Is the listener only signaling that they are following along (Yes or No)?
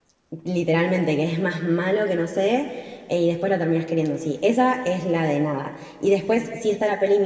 Yes